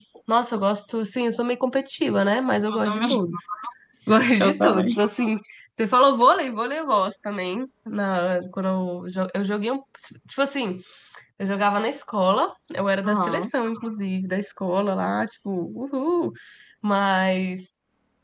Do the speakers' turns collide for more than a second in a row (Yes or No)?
No